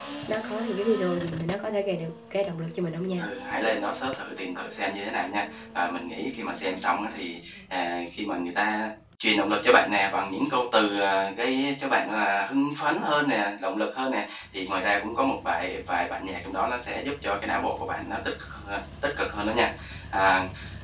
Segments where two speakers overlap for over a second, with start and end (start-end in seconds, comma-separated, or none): none